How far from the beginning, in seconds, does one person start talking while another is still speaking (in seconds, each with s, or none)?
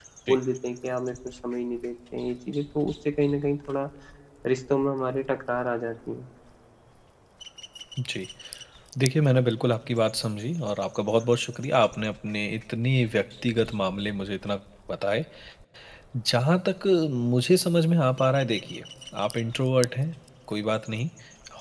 none